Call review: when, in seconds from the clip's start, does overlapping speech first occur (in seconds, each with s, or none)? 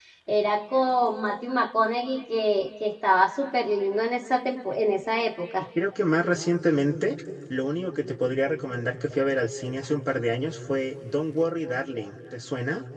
none